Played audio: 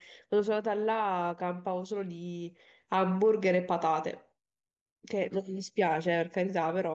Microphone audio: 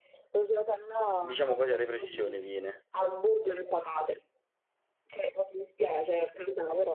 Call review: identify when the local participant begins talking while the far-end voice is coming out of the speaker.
1 s

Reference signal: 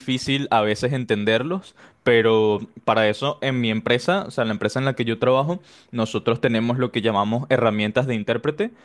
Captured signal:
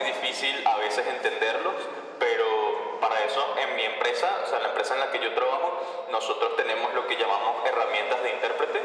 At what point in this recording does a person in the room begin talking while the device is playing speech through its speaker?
none

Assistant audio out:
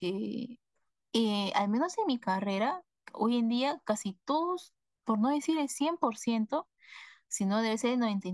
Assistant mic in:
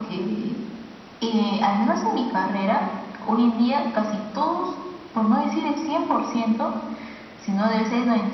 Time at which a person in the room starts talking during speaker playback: none

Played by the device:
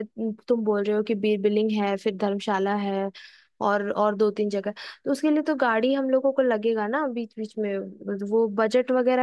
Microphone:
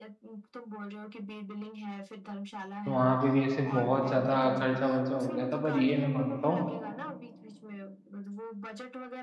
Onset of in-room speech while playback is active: 3 s

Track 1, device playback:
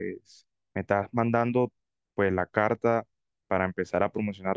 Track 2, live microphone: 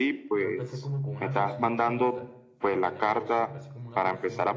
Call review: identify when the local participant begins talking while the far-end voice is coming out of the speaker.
0 s

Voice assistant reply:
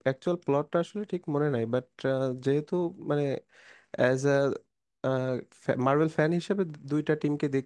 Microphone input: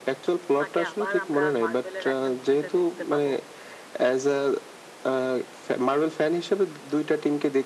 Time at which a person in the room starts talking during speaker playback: 1 s

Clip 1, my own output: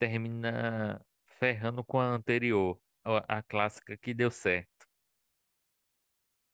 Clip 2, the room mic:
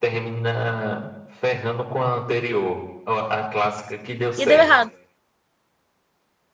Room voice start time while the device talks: 4 s

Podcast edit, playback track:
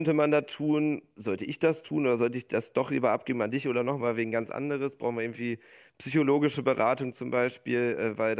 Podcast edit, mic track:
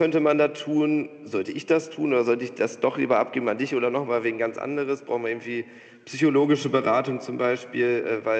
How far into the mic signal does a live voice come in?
none

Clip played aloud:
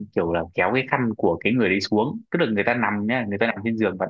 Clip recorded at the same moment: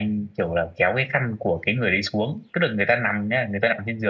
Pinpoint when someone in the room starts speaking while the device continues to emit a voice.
none

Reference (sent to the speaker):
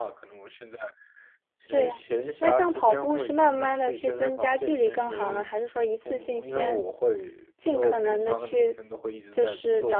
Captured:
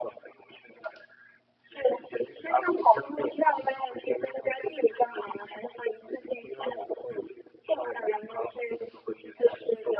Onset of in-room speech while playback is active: none

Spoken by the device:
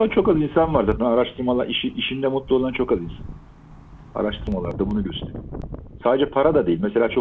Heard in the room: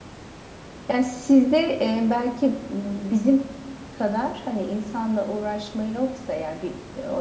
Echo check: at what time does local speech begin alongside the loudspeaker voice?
1 s

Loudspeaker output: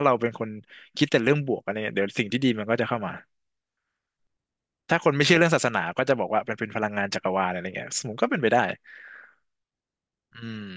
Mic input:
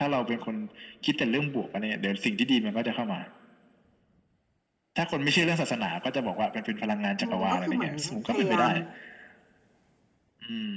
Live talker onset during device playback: 7 s

